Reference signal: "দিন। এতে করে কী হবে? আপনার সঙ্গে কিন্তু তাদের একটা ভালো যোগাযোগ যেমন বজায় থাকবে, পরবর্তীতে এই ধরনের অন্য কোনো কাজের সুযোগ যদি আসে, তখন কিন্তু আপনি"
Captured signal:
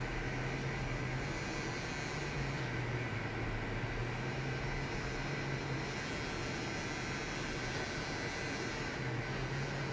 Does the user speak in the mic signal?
No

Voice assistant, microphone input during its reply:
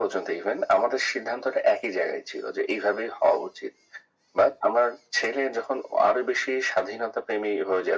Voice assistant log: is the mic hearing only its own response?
Yes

